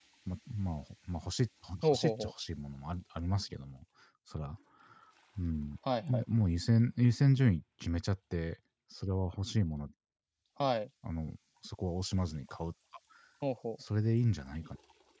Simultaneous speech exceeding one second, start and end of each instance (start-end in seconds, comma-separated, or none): none